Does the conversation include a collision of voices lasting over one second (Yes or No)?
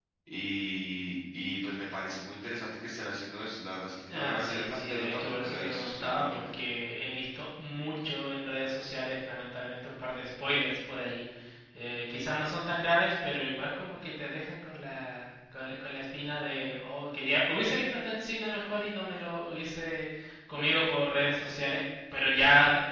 Yes